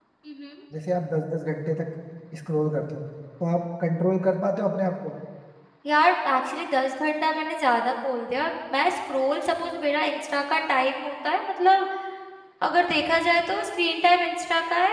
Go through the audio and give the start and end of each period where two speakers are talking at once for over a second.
none

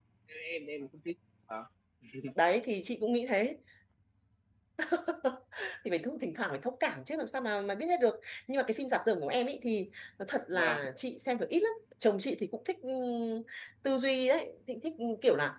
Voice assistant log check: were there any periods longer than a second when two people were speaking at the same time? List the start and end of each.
none

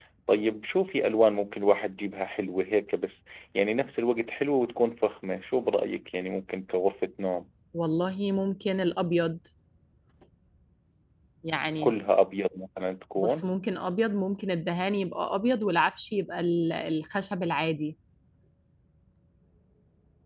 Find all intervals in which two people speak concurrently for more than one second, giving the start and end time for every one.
none

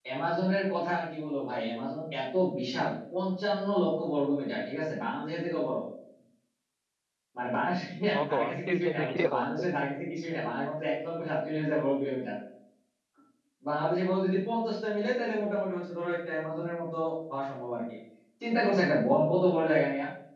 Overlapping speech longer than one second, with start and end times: 8.1-9.7

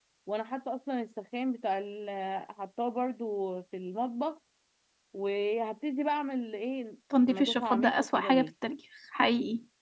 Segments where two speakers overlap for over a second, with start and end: 7.3-8.5

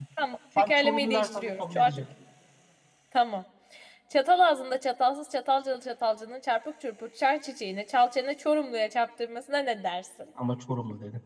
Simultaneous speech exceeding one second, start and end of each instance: 0.6-1.9

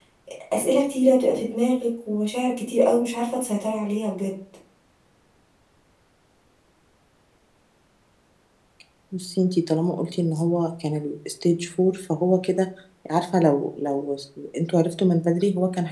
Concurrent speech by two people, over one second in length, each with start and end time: none

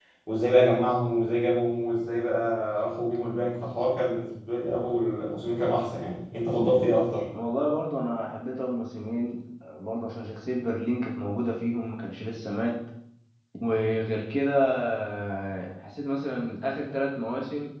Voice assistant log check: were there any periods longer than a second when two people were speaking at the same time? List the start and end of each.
none

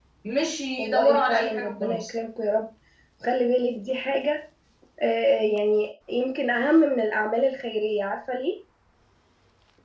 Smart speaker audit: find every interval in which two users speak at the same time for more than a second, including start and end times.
0.8-2.1

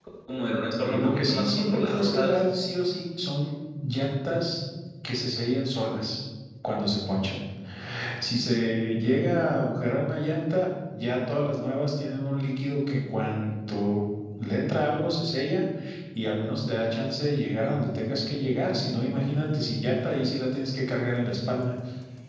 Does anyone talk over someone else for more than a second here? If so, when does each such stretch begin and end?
0.8-2.4

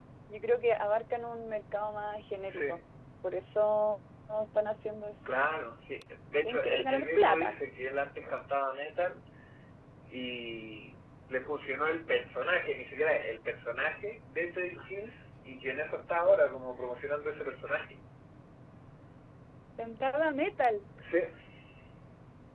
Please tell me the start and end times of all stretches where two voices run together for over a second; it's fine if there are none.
6.4-7.7

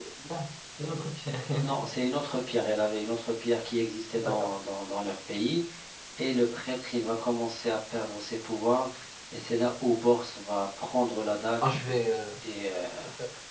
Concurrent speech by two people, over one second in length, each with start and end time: none

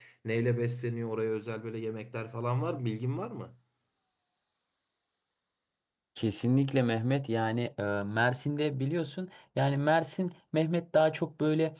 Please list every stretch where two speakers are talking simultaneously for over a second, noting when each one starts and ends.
none

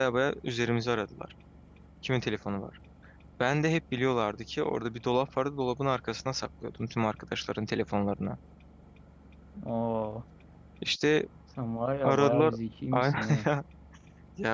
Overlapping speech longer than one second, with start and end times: none

